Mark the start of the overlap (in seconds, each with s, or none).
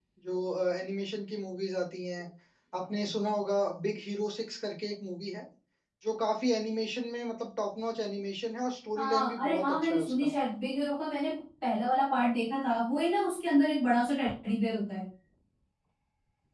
9.0 s